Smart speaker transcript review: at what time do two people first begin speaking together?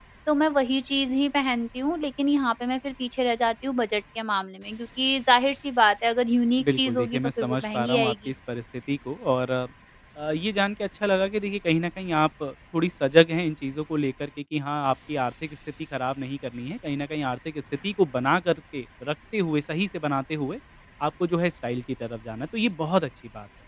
6.6 s

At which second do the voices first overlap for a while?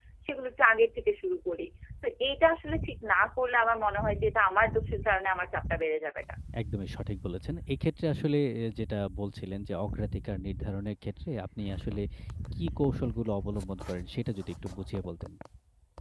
none

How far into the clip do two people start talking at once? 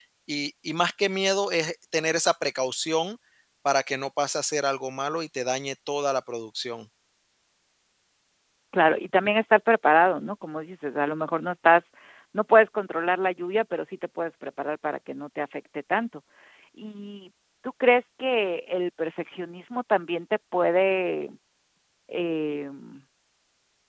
none

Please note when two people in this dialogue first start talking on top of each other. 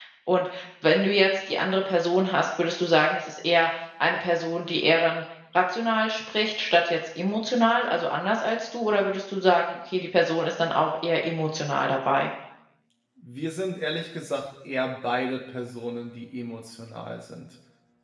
none

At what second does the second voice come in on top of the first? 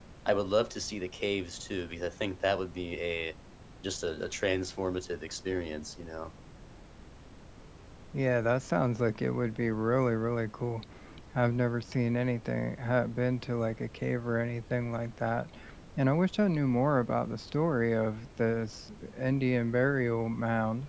none

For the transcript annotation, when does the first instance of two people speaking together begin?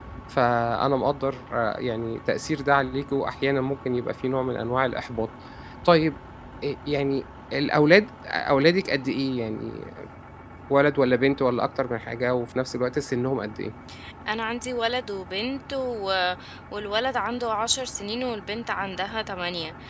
none

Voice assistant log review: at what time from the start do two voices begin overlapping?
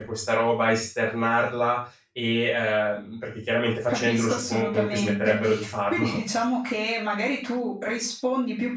3.9 s

